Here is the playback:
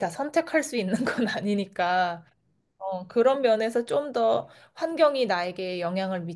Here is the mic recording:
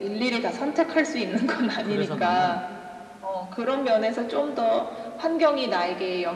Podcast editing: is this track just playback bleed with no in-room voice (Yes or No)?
No